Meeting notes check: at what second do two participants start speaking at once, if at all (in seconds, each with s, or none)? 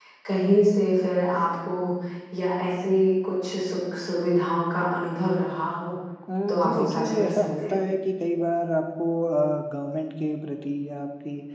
6.5 s